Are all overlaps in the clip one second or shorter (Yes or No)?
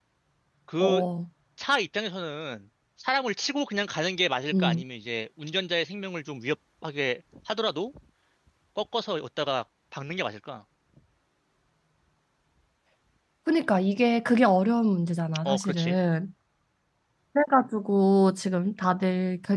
Yes